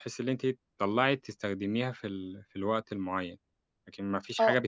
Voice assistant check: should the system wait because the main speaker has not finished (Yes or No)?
No